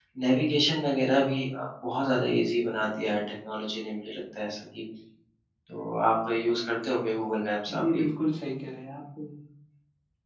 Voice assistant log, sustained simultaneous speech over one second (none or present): none